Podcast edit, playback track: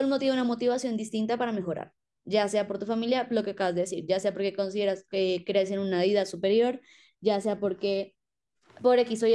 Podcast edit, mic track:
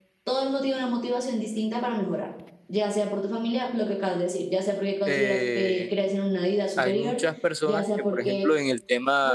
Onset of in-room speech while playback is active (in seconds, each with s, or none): 5.0 s